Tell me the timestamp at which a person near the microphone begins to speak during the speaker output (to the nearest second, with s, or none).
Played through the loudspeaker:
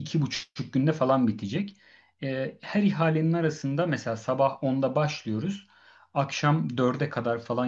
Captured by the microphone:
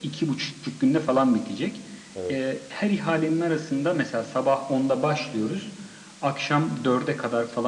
2 s